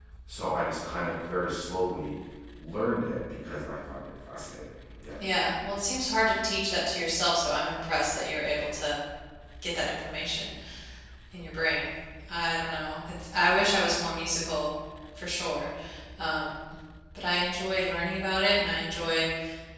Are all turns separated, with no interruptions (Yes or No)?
Yes